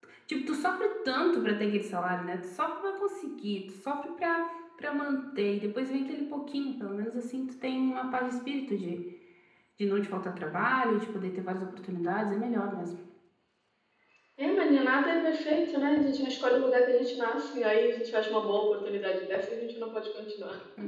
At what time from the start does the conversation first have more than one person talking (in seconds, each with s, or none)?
none